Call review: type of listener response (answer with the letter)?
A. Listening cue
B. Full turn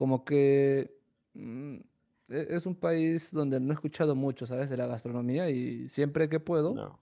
A